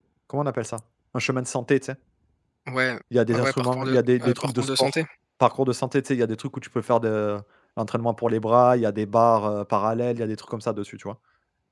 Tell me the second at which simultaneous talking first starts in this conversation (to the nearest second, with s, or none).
3 s